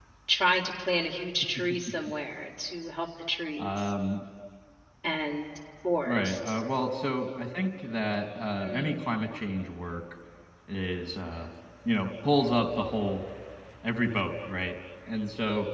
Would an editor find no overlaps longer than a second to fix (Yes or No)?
Yes